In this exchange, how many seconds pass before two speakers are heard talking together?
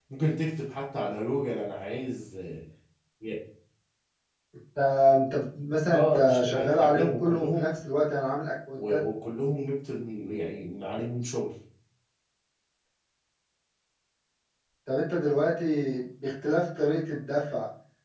5.9 s

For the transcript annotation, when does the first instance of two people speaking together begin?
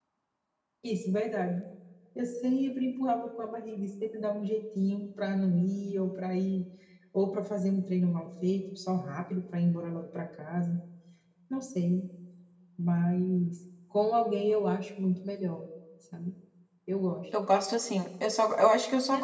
none

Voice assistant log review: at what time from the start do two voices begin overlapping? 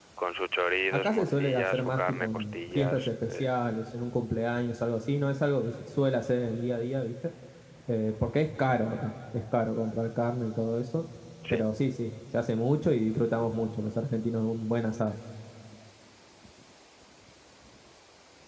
0.9 s

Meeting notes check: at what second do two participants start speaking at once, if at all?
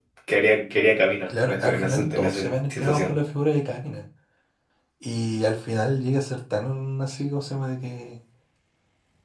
1.3 s

